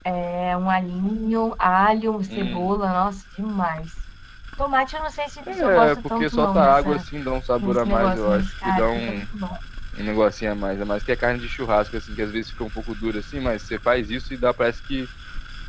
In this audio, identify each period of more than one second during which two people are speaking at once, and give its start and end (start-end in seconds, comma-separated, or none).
5.6-7.0, 7.6-9.2